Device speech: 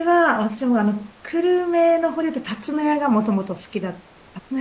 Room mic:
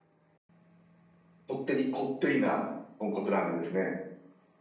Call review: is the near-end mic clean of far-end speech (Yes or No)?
Yes